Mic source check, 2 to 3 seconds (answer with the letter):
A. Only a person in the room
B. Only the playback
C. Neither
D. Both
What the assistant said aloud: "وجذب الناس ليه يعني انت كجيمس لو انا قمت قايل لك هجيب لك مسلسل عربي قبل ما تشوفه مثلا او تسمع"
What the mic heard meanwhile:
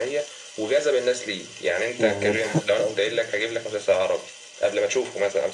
D